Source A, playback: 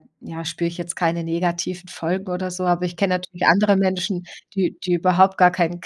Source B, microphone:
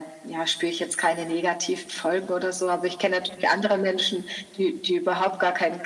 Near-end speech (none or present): none